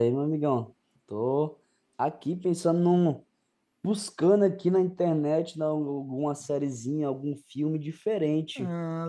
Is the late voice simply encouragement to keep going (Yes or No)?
Yes